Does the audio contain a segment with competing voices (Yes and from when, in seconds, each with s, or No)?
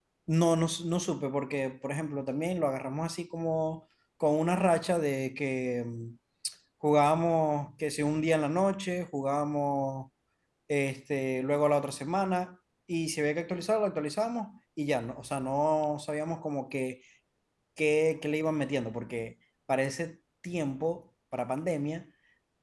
No